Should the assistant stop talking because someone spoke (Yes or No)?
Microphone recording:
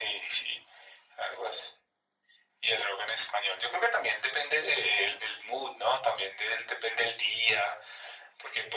No